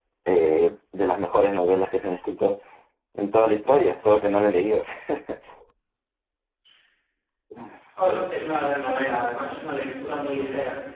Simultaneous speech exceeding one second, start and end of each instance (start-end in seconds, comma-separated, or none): none